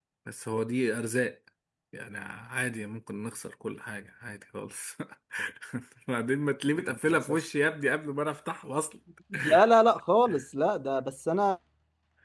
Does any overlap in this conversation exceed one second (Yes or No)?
No